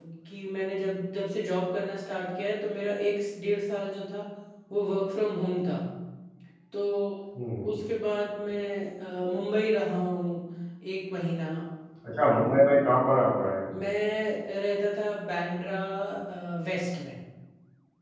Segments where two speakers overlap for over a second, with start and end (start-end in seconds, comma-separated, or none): none